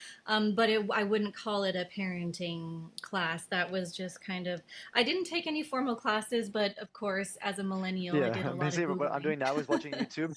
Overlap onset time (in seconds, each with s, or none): 8.1 s